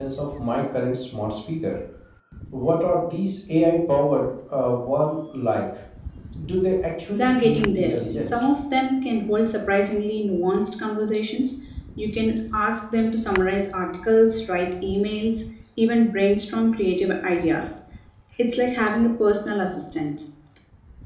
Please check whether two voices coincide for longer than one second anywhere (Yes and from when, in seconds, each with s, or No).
Yes, from 7.1 s